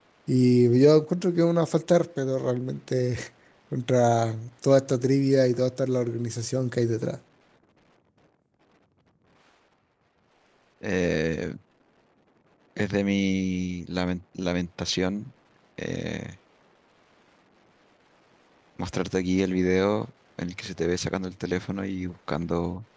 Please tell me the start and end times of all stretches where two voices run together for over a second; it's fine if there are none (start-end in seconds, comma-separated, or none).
none